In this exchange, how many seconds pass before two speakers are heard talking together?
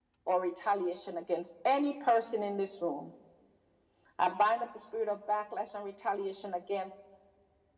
none

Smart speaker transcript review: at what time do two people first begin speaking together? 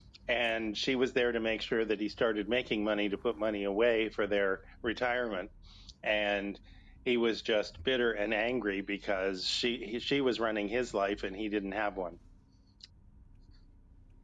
none

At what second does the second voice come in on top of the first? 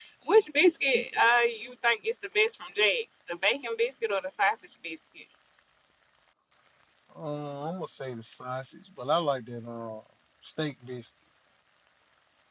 none

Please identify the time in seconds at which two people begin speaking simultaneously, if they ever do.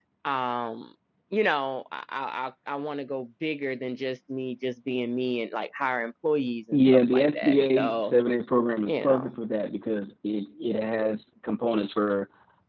6.7 s

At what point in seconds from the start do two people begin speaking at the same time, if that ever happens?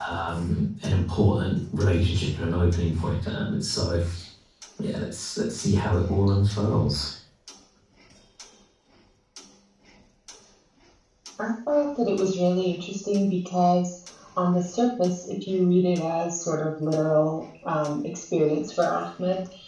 none

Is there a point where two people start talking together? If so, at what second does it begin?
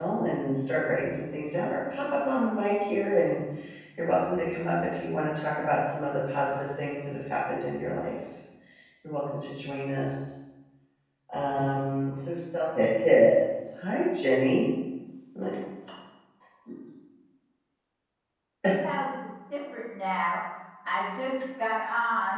none

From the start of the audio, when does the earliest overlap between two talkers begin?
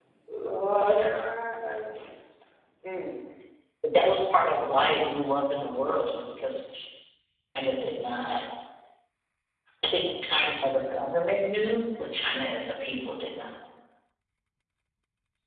none

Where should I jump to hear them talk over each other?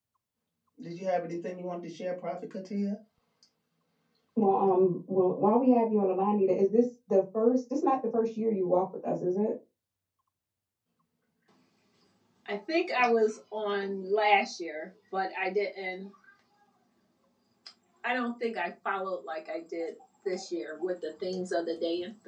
none

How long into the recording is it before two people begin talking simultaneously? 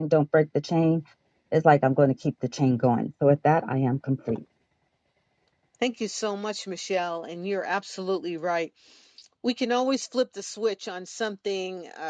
none

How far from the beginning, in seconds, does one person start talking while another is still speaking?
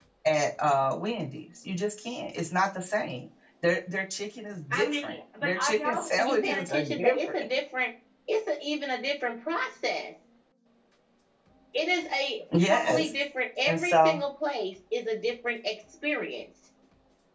4.7 s

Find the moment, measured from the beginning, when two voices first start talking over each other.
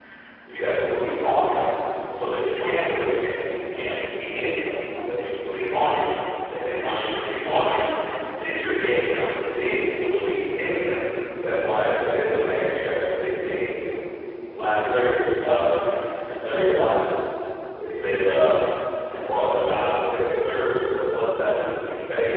none

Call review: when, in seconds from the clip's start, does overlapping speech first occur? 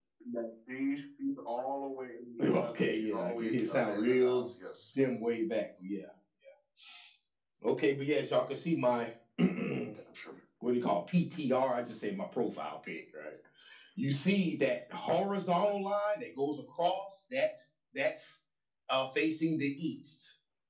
2.4 s

